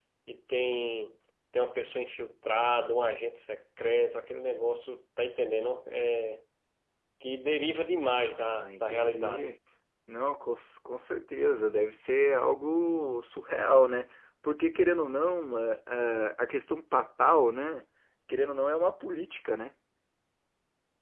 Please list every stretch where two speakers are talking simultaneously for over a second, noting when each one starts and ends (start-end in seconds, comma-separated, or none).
8.2-9.5